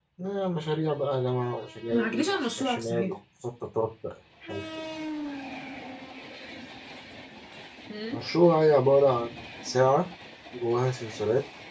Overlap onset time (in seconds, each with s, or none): 1.9 s